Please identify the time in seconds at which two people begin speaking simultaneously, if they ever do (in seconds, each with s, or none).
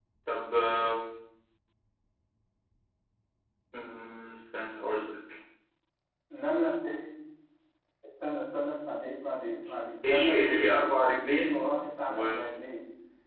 10.0 s